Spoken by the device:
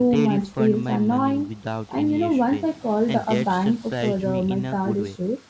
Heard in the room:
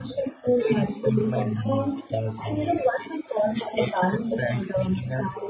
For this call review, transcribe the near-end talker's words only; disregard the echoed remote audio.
none

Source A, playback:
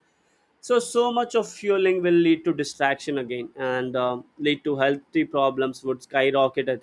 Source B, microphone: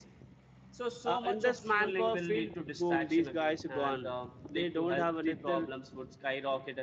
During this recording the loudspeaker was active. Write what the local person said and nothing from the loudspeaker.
Uh, in this manpower field, boom, these guys are gone. They don't have another

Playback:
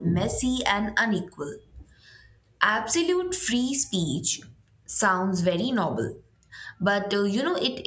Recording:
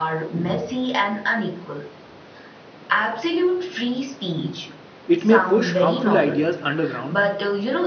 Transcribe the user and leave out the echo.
It may push harmful ideas underground

